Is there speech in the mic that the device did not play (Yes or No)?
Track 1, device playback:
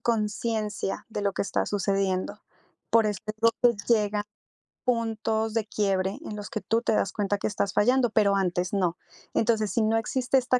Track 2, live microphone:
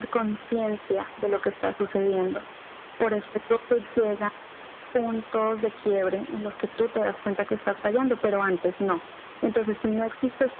No